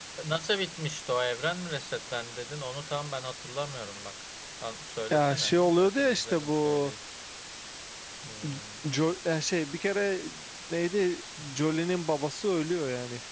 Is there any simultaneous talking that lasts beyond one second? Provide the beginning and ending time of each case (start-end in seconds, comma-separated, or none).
5.1-6.9